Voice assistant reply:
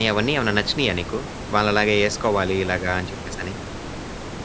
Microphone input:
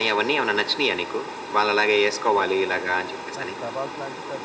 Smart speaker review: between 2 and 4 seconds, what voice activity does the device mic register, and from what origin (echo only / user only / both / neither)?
both